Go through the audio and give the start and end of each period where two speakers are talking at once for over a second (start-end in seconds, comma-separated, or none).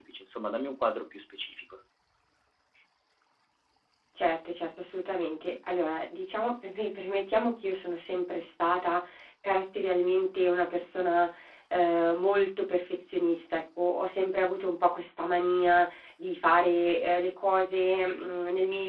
none